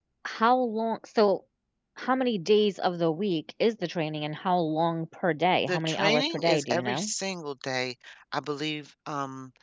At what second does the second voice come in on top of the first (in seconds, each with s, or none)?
5.7 s